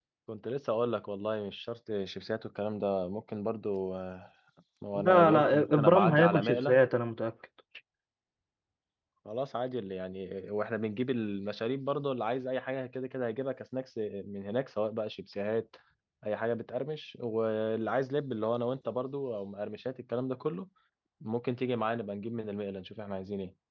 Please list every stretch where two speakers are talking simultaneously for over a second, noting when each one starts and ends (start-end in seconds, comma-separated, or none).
4.9-6.8